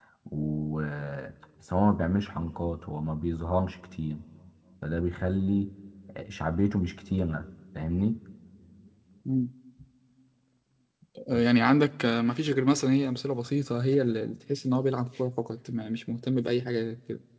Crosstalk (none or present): none